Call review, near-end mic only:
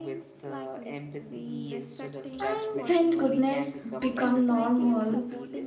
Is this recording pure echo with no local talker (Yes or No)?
No